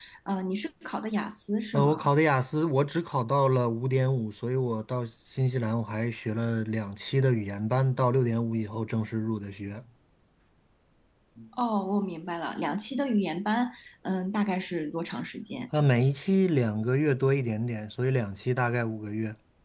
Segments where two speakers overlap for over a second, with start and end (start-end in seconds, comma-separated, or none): none